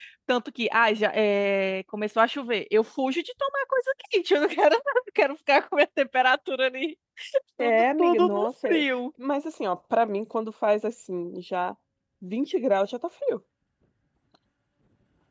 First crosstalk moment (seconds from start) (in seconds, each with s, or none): 7.6 s